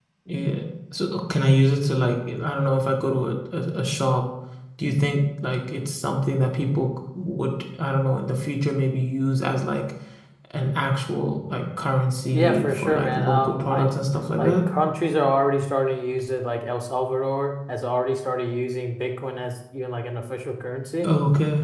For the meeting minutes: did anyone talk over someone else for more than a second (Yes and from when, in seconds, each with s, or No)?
Yes, from 12.3 s